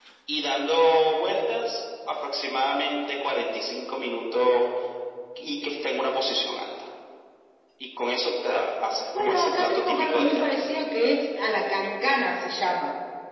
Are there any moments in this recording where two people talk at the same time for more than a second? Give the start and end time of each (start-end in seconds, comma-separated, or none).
9.2-10.5